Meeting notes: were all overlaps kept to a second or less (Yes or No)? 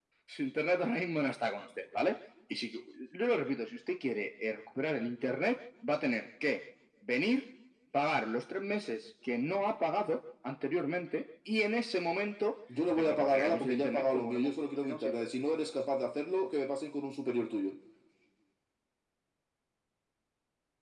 No